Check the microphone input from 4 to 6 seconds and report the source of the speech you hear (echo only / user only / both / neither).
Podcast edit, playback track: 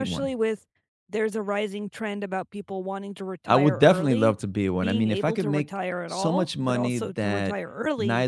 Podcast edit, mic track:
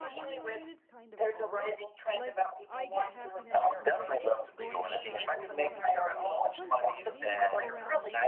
both